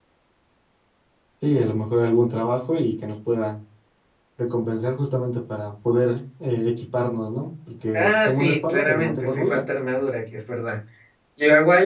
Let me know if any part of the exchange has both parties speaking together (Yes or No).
Yes